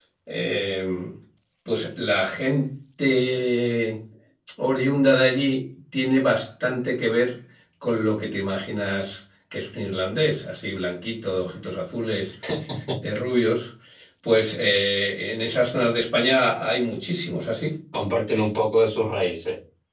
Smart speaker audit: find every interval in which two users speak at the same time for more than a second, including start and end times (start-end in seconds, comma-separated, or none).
none